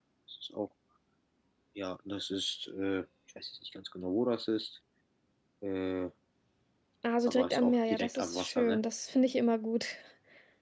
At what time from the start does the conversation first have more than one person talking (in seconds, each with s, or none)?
7.3 s